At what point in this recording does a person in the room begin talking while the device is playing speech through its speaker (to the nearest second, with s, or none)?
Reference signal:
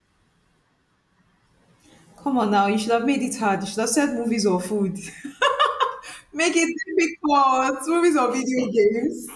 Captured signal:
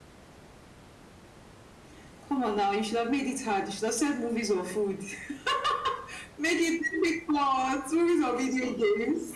none